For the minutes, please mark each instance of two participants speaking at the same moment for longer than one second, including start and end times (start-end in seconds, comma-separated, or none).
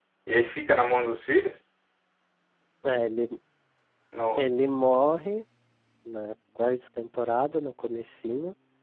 none